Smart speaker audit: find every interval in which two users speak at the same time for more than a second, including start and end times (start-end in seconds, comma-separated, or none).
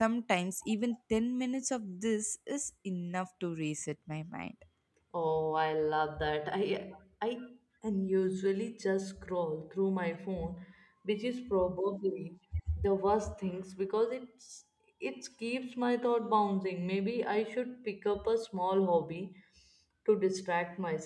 none